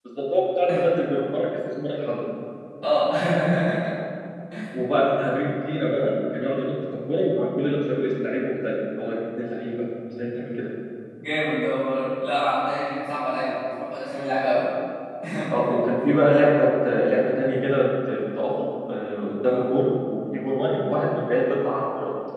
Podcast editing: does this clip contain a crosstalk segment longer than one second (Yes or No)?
No